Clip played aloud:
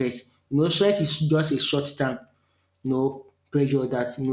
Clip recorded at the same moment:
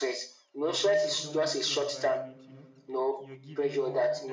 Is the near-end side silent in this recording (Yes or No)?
No